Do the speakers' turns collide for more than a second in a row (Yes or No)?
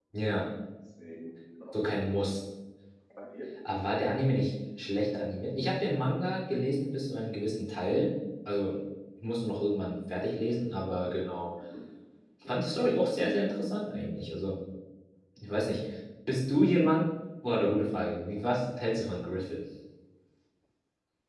No